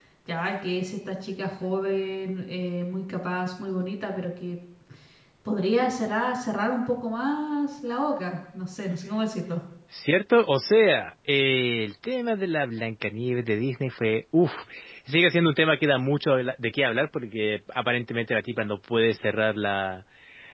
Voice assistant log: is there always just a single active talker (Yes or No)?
Yes